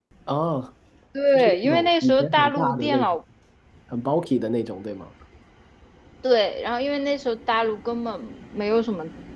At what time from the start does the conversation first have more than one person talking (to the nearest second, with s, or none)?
1 s